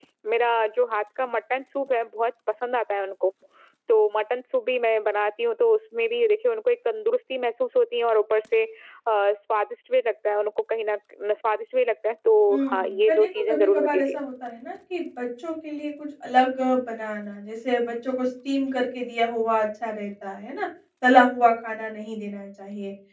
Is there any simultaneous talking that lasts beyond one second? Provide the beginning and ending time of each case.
12.5-14.2

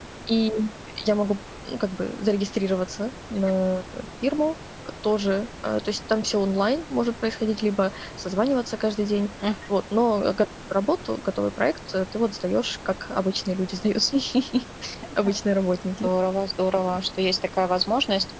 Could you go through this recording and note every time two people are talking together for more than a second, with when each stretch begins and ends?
none

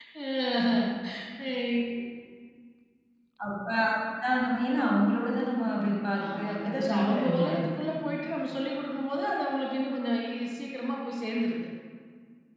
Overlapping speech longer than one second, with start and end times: 6.3-7.8

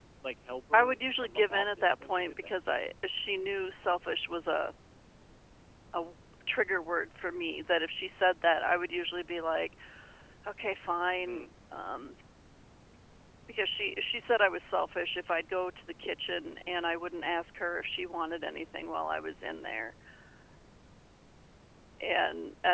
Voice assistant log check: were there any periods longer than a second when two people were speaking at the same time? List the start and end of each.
0.7-2.5

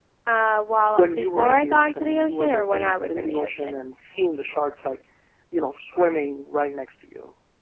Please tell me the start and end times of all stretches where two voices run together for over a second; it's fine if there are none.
0.9-3.7

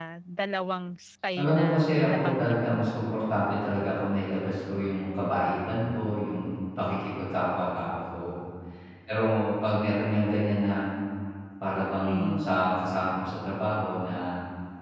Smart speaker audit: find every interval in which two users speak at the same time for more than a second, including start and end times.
1.4-2.9

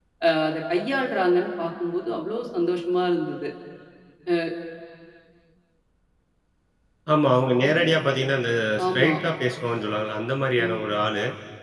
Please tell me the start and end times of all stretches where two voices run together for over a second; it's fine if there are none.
none

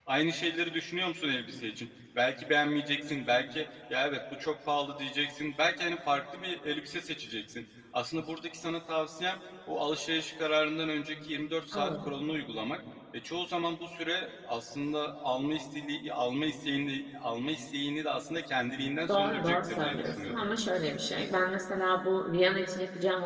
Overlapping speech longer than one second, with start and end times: 19.1-20.4

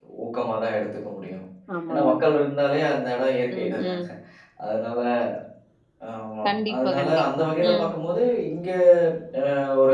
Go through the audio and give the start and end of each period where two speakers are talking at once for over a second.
6.4-7.9

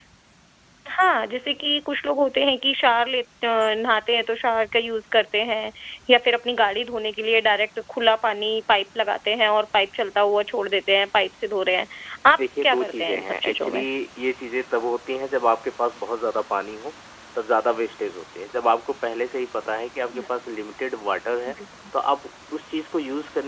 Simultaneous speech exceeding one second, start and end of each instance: 12.4-13.8

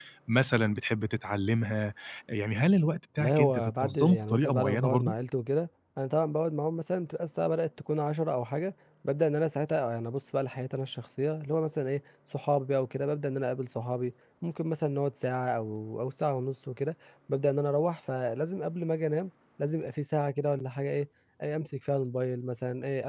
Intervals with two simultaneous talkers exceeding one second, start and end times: 3.2-5.1

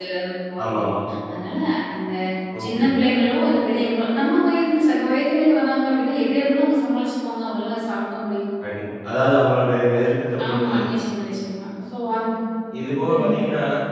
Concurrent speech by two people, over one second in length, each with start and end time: none

